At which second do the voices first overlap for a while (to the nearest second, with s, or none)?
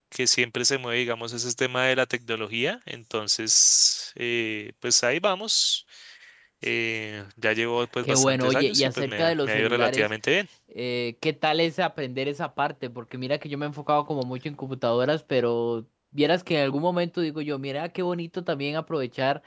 8 s